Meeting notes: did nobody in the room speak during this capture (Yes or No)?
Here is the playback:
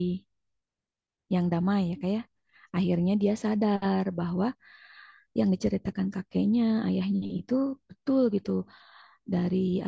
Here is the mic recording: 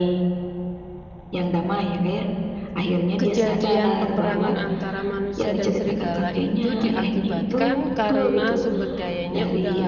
No